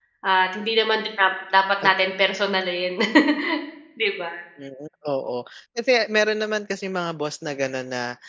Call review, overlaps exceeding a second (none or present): none